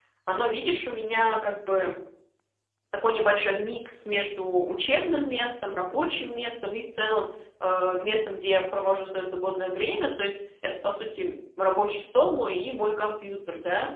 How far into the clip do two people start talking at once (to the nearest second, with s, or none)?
none